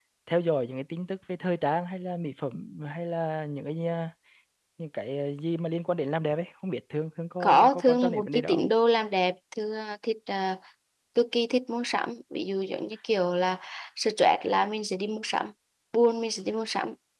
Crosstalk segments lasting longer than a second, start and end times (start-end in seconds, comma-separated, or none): 7.4-8.6